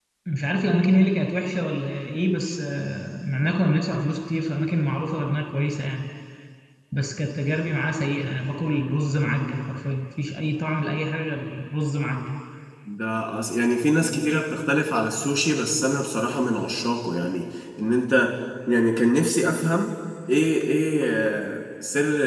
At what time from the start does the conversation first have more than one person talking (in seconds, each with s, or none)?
none